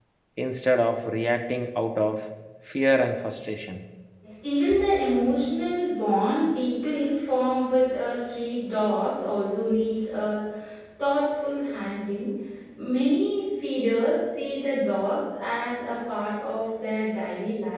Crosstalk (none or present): none